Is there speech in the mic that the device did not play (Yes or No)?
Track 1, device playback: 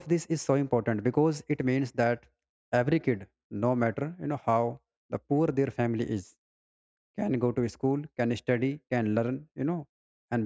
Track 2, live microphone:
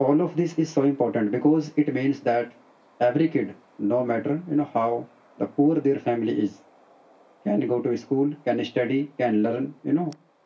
No